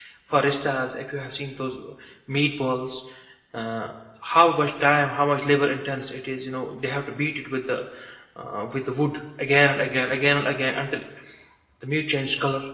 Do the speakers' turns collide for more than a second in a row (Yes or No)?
No